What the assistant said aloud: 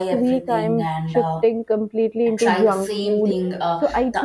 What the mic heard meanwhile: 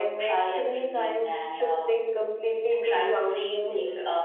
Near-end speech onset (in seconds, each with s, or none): none